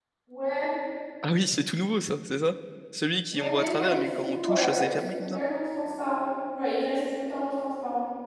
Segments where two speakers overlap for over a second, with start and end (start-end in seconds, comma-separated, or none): 3.3-5.4